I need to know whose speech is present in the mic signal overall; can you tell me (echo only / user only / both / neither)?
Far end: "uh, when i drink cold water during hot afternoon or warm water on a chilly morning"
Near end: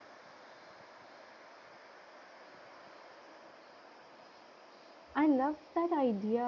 user only